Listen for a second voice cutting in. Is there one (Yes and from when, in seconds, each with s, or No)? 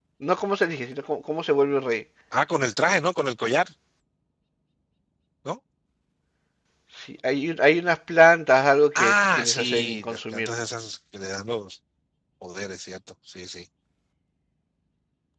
Yes, from 8.9 s